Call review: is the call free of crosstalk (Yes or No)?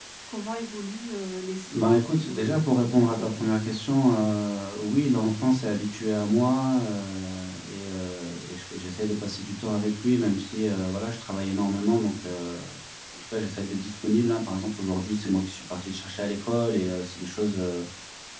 No